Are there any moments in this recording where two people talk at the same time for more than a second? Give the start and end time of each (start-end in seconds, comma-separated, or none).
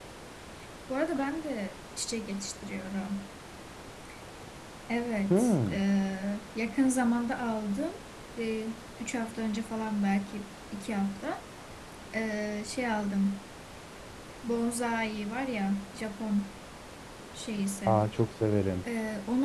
none